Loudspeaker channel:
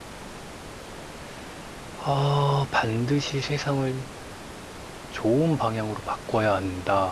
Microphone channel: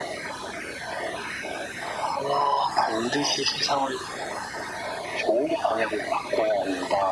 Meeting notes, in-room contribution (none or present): none